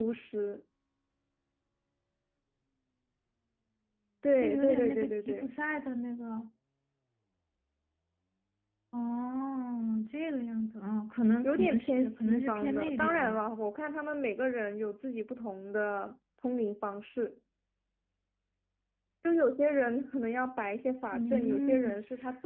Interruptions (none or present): present